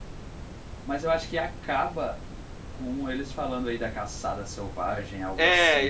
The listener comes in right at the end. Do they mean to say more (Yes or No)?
Yes